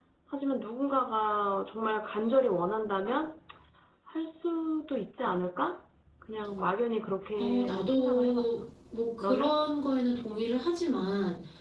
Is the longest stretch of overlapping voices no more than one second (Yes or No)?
No